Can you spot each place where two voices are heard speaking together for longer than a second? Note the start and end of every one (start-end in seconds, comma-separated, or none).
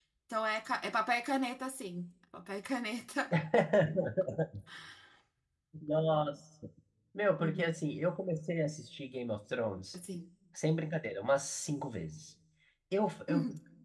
none